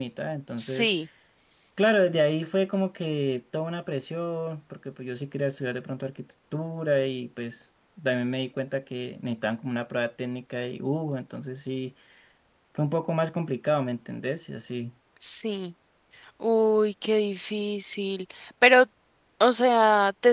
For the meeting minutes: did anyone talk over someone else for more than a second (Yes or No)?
No